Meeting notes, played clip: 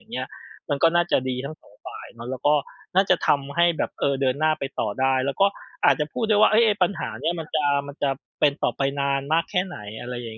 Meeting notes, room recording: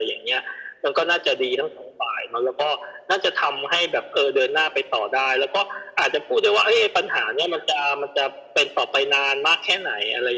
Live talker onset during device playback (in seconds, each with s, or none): none